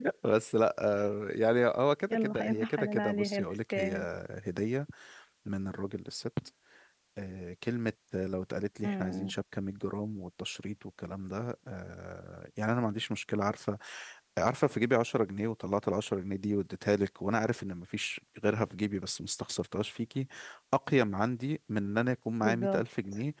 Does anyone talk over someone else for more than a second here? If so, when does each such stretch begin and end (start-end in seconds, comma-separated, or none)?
2.1-4.0